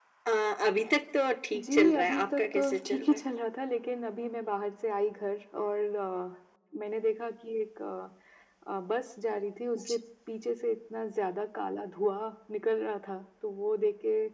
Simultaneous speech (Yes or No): Yes